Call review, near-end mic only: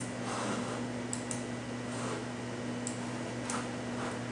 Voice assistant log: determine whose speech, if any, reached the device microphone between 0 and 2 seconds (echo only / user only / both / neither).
neither